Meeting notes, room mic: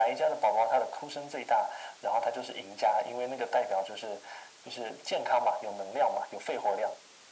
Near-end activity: none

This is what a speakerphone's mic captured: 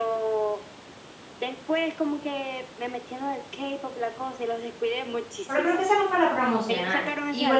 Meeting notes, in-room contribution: present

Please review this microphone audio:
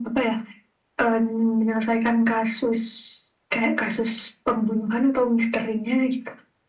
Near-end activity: none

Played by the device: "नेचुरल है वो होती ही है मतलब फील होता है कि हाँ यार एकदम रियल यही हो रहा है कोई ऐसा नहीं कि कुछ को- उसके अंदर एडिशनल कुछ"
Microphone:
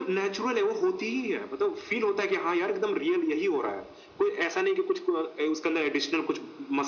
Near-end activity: none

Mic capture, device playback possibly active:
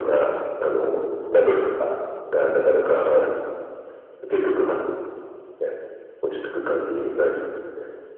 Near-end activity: none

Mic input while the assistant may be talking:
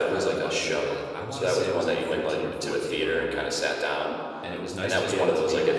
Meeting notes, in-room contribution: present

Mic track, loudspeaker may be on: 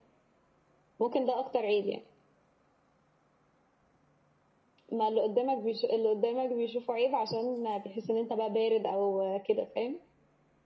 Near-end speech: none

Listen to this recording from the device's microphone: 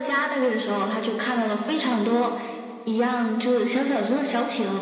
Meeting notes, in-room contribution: none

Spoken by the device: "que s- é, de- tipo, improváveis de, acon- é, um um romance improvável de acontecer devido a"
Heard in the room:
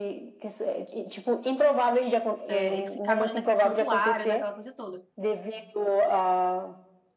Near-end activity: present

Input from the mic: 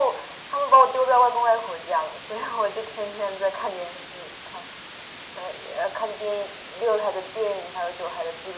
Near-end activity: none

